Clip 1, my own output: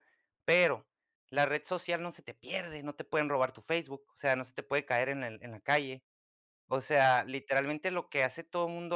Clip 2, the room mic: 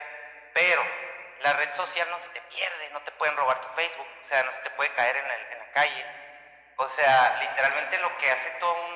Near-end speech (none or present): none